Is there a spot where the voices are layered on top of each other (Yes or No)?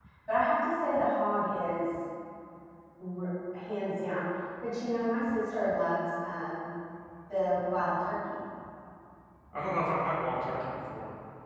No